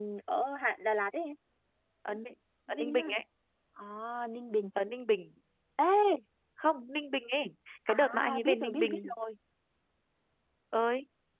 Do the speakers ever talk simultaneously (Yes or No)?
Yes